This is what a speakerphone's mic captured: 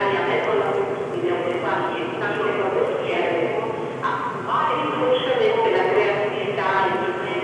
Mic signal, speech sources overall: echo only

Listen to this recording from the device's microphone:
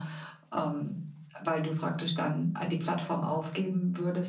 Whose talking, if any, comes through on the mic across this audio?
echo only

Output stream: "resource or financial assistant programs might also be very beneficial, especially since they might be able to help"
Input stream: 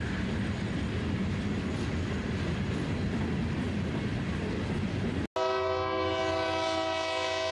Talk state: neither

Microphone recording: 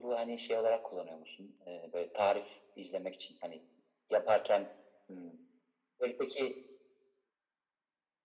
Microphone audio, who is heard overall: echo only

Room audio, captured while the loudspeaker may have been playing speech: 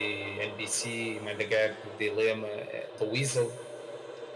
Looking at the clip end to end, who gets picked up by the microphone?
echo only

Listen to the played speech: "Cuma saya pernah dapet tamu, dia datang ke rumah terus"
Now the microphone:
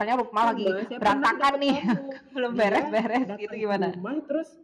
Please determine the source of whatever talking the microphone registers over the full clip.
both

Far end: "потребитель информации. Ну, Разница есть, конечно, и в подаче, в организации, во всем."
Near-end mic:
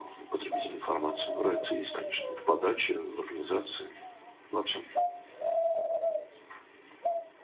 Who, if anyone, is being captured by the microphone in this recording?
echo only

